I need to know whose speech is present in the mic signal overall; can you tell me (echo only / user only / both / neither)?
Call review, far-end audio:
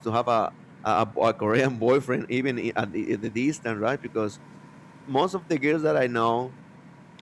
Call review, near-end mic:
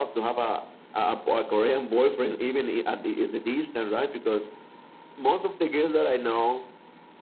echo only